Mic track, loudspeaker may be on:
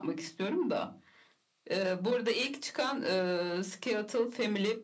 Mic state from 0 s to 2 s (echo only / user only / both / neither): echo only